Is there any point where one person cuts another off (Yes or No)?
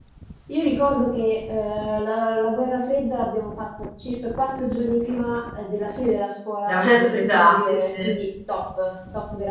Yes